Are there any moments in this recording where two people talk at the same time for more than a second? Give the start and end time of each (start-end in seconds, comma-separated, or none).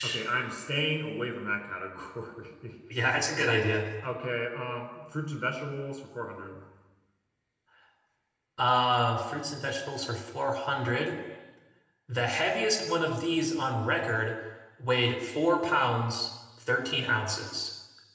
none